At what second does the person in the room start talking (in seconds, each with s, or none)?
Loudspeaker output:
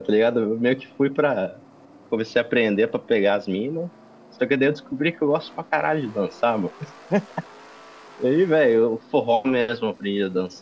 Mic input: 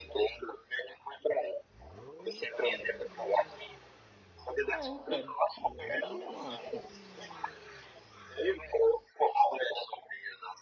4.7 s